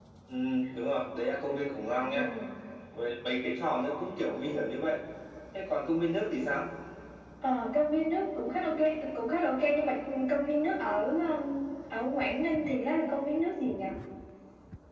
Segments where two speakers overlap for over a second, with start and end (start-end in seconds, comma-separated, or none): none